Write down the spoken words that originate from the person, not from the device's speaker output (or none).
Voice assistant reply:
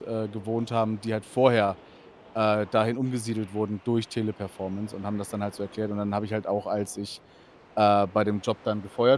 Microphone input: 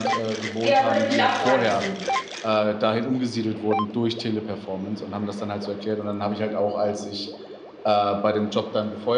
Ja, würde mich auch reizen.